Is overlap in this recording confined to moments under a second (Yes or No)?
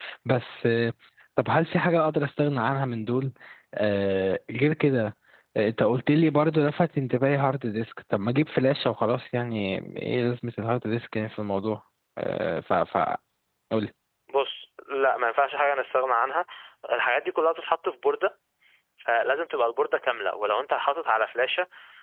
Yes